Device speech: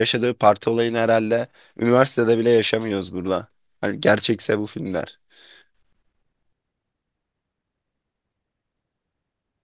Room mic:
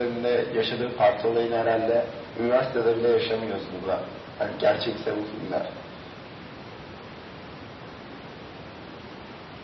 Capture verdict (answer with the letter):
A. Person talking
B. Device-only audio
B